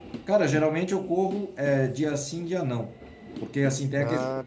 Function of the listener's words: listening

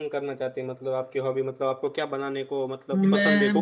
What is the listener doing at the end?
taking over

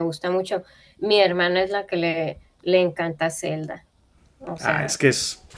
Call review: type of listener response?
taking over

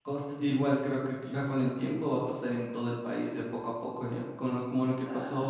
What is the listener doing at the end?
listening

